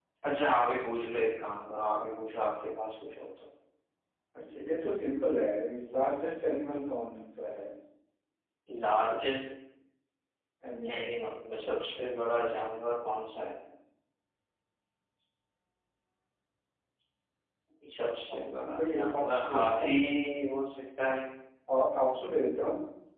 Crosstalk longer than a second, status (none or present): present